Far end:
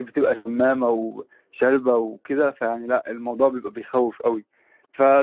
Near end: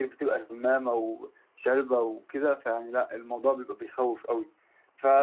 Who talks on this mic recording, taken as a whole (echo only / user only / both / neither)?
echo only